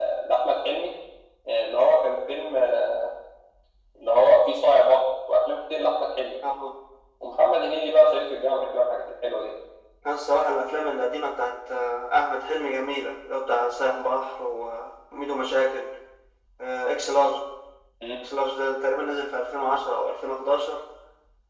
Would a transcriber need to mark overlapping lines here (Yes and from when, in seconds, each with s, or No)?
No